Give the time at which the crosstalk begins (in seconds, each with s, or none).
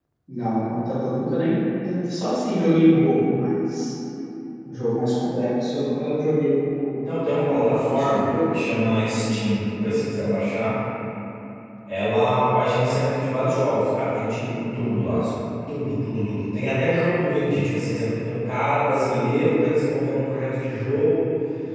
7.3 s